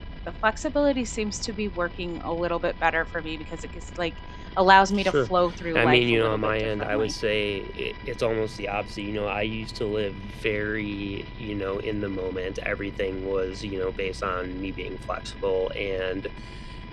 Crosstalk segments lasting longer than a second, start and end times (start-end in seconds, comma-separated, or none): 5.8-7.1